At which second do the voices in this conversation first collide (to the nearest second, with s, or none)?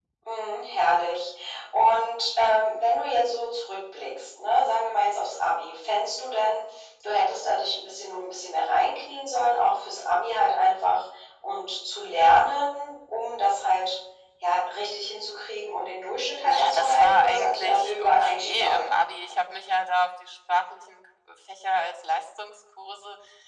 16 s